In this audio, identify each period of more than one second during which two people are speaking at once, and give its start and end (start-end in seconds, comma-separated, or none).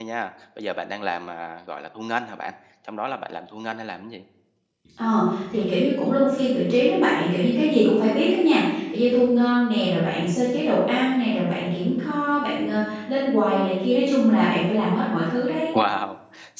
none